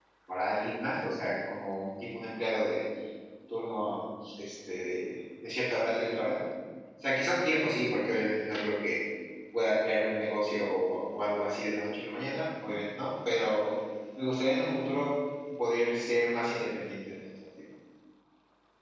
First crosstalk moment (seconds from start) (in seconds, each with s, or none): none